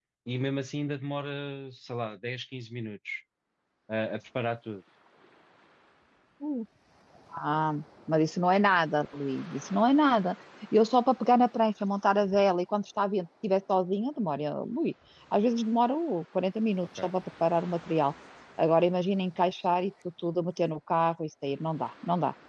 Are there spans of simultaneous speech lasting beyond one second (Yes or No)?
No